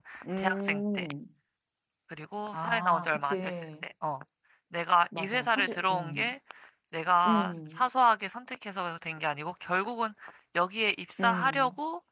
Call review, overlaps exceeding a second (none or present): present